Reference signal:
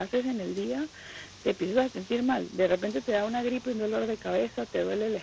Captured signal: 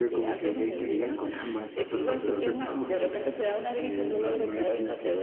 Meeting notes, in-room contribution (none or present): present